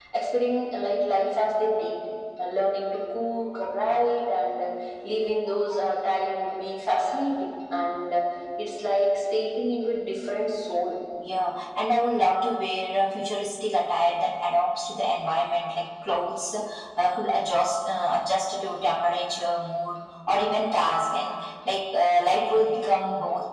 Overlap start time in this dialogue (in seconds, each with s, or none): none